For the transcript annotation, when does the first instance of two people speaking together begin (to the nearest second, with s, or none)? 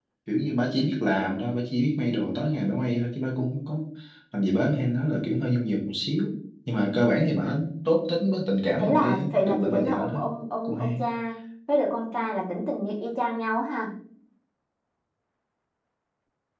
9 s